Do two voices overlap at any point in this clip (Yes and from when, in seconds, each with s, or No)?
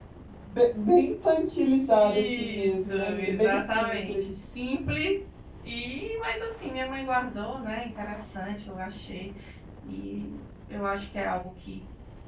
Yes, from 2.0 s